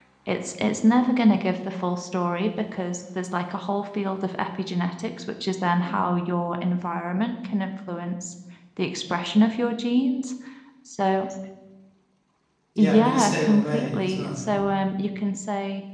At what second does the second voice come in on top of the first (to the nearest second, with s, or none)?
13 s